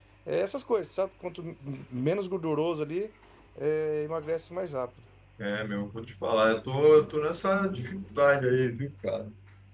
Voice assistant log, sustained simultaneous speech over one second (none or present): none